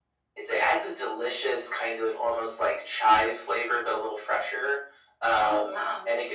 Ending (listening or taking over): listening